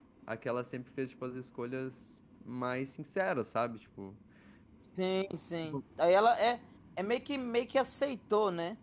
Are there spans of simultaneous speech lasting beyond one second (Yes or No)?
No